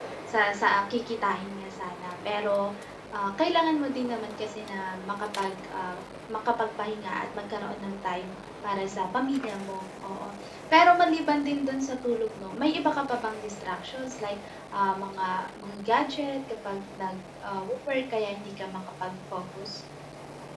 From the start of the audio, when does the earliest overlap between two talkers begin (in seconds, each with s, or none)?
none